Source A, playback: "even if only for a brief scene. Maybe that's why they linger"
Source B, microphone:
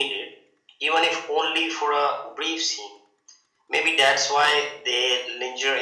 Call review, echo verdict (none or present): present